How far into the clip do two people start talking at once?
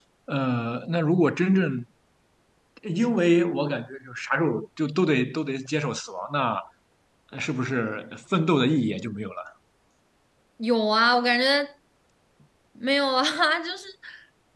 none

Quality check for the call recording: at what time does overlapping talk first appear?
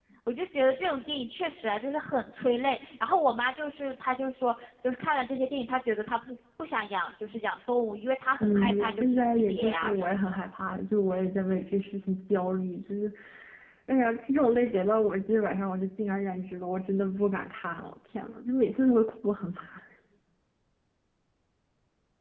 8 s

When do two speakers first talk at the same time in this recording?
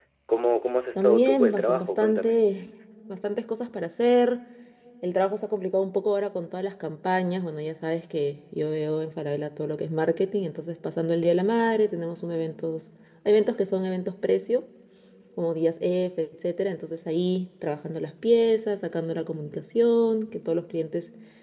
1 s

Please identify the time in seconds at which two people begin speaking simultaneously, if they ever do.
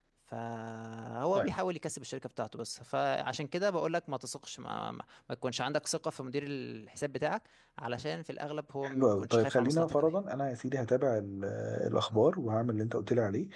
9 s

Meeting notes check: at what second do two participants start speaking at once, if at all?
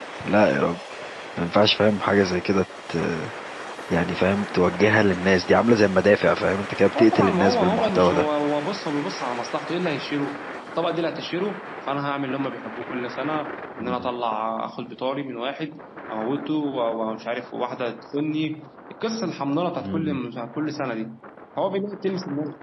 7 s

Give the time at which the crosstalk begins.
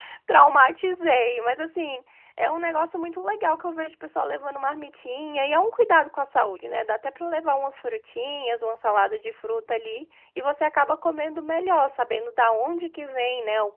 none

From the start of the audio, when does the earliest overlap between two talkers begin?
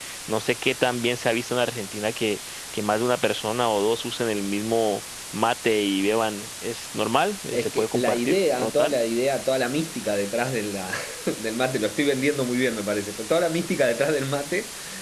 8 s

